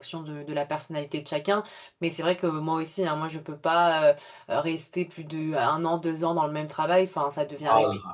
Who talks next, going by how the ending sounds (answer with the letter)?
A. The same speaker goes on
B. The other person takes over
A